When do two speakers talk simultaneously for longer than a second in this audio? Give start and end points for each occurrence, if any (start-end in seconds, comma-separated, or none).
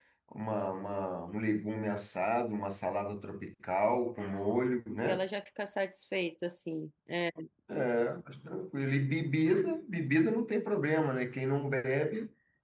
none